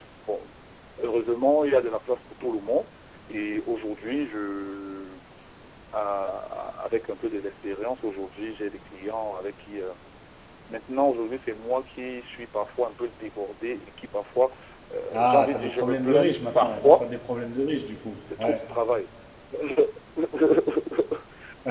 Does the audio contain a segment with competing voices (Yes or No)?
Yes